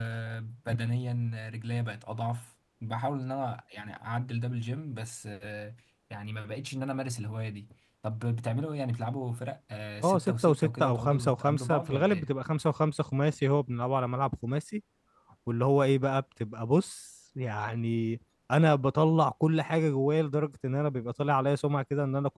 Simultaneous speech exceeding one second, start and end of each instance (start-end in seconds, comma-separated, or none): 10.0-12.3